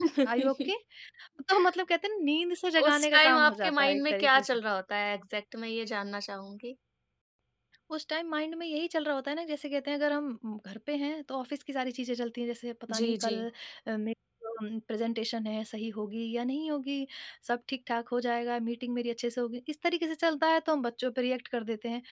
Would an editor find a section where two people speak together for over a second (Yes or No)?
Yes